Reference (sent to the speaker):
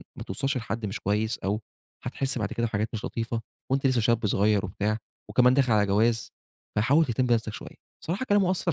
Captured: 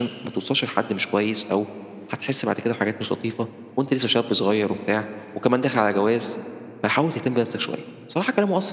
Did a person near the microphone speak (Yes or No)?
No